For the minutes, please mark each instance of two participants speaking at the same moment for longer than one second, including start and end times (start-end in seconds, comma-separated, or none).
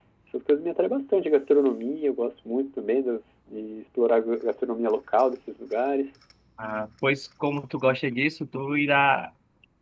none